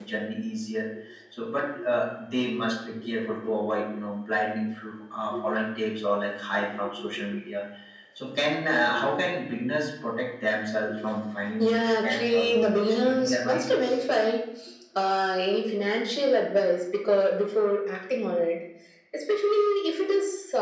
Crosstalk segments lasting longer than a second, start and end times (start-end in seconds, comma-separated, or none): 11.6-13.8